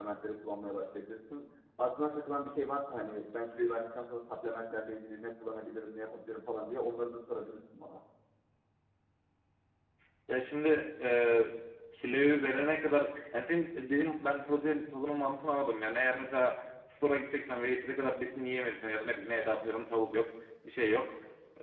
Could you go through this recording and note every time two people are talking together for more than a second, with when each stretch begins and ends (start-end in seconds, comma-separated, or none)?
none